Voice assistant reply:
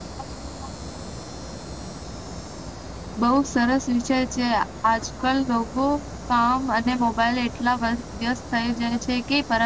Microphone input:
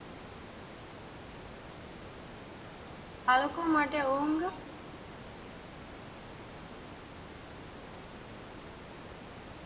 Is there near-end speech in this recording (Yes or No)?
Yes